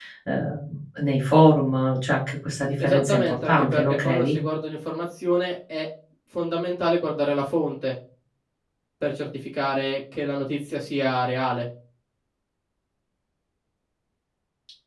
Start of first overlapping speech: 2.8 s

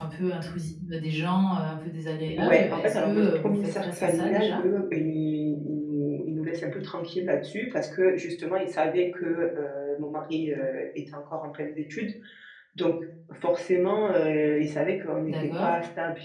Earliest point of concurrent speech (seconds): 2.4 s

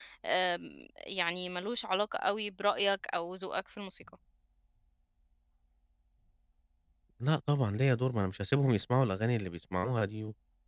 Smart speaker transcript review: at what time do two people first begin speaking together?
none

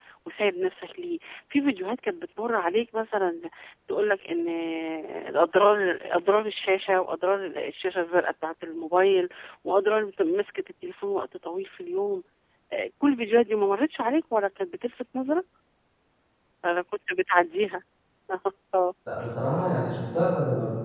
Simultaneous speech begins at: none

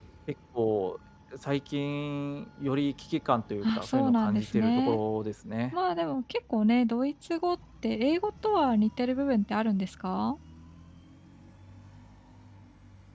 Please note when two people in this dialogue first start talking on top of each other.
3.6 s

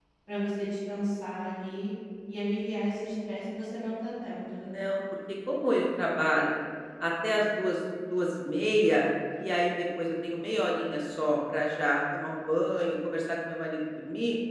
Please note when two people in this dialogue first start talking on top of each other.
none

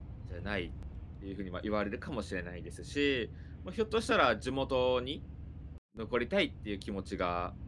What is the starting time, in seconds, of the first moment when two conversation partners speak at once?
none

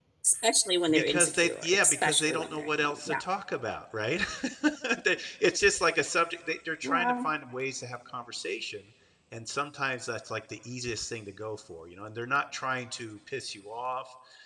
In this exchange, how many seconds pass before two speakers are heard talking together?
0.9 s

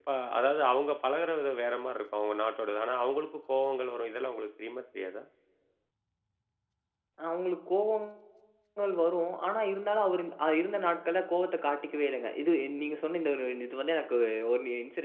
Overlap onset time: none

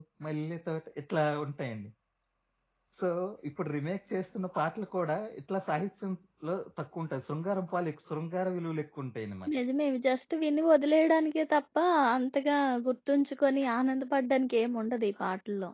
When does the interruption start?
none

